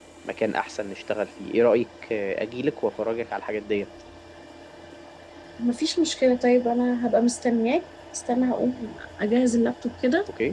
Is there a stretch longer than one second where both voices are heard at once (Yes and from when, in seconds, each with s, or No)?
No